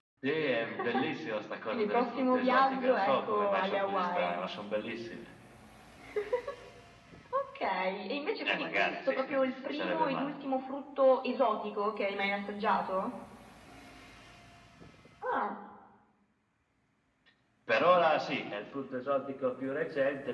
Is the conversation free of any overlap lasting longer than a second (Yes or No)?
No